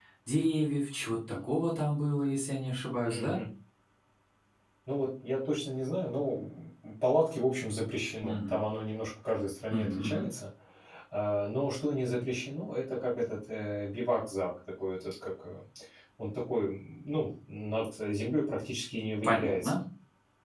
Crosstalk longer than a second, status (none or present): none